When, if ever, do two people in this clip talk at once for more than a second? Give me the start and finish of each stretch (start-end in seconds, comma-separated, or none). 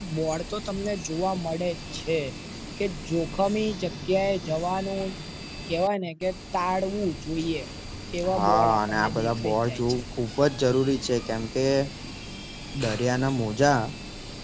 8.3-10.0